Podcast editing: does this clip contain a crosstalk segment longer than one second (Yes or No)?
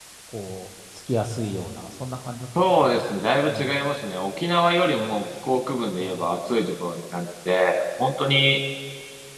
No